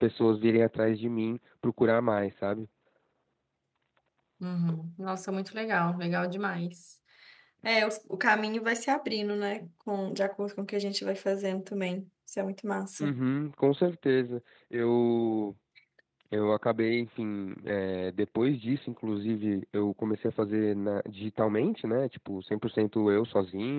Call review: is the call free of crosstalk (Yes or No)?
Yes